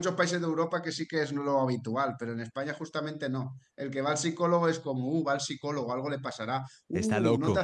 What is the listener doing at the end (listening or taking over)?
listening